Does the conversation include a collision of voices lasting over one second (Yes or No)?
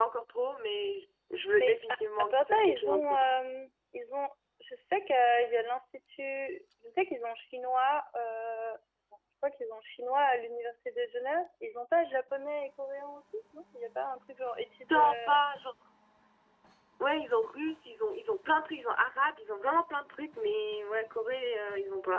Yes